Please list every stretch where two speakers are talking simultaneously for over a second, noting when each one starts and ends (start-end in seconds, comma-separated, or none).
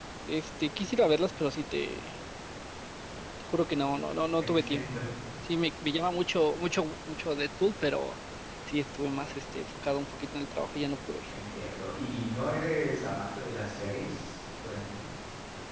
none